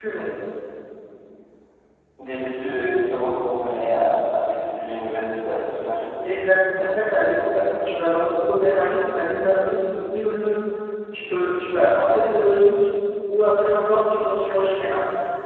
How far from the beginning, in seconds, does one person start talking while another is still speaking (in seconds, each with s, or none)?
none